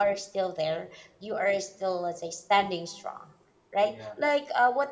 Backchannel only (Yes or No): Yes